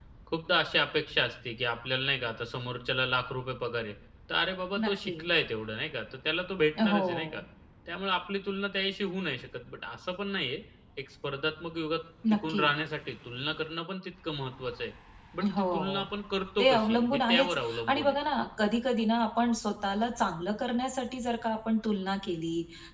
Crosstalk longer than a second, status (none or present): present